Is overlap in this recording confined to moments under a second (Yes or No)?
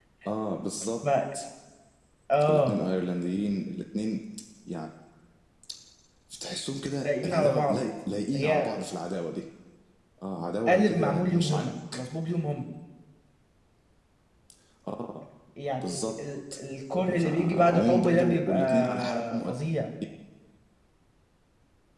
No